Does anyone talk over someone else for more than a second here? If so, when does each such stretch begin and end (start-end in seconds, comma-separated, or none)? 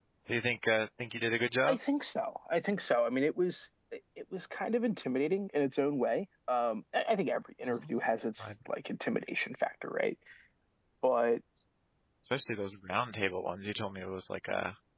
none